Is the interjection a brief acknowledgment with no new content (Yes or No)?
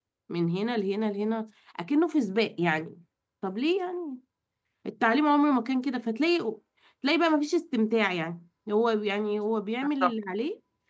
Yes